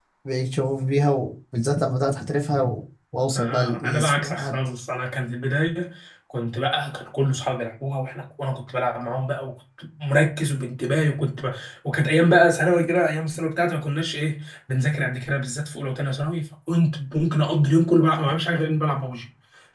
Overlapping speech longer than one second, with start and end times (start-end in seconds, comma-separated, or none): 3.4-4.6